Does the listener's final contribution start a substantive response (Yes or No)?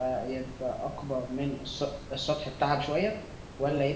No